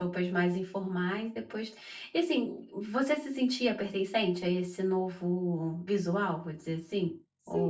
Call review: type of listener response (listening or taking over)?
taking over